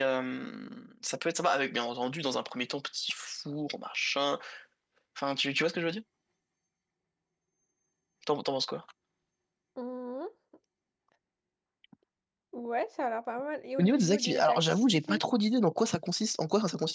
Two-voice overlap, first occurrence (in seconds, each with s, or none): 13.8 s